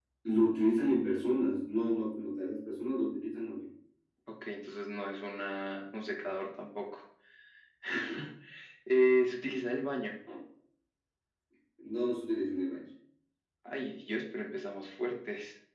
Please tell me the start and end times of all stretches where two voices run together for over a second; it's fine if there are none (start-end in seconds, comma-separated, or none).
none